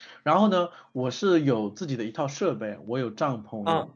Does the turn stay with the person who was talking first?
Yes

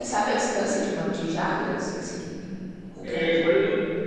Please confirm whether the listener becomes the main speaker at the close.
Yes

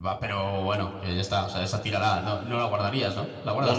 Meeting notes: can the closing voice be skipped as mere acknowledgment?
No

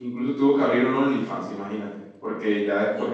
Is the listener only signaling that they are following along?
Yes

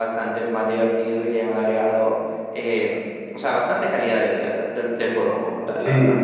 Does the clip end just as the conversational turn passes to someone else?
Yes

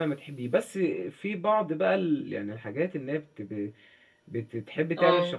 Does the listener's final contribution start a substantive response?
No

